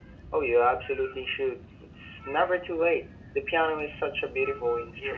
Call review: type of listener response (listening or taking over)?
taking over